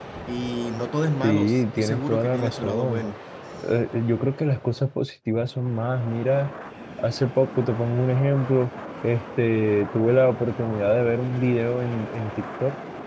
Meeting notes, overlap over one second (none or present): present